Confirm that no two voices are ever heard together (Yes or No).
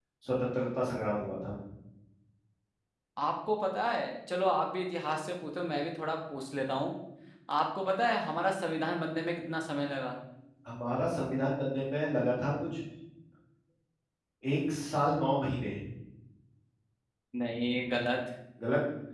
Yes